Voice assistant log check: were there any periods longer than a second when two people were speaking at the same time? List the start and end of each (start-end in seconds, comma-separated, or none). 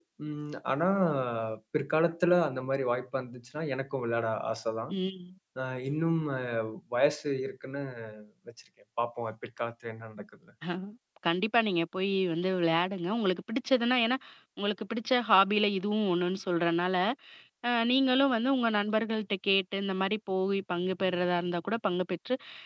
none